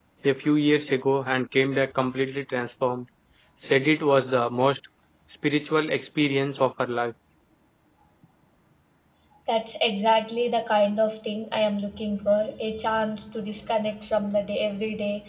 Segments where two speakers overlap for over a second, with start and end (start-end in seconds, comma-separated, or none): none